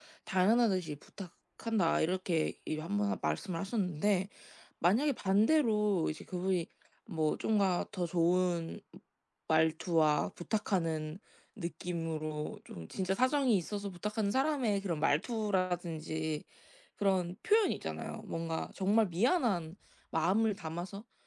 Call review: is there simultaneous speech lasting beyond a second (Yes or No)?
No